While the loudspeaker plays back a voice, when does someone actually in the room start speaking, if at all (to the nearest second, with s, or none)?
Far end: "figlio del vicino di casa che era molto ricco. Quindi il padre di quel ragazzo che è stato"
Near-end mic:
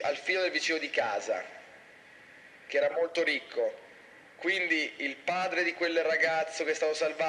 none